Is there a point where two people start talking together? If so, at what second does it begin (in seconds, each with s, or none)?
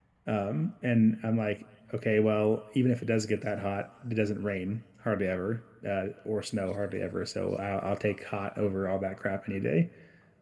none